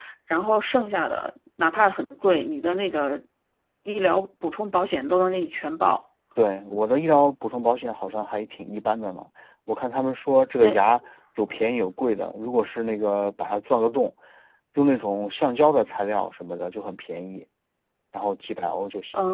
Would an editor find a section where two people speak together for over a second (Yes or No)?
No